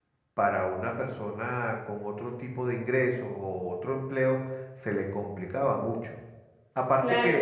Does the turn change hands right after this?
Yes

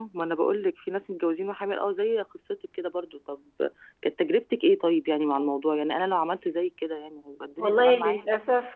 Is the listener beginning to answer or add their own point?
Yes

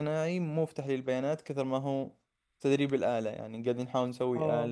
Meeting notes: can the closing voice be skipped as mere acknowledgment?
No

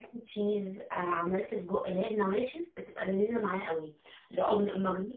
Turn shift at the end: No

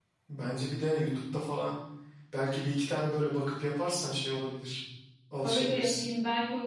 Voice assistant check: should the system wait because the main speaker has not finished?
No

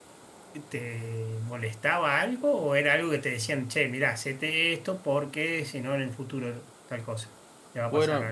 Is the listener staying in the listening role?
No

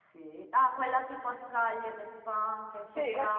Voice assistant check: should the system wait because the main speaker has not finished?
No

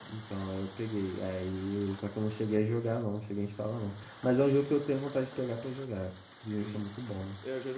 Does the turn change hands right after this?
Yes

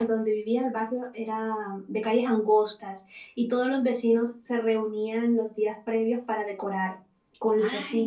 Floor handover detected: No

